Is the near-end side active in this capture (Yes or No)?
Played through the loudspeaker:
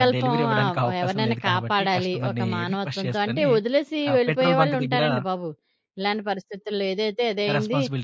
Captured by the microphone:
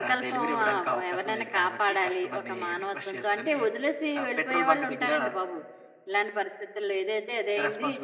No